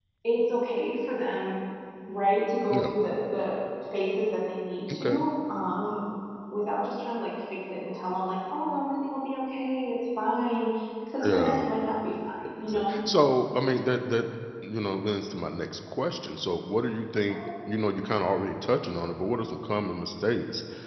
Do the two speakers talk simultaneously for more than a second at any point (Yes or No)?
No